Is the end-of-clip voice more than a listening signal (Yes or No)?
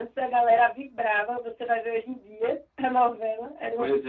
Yes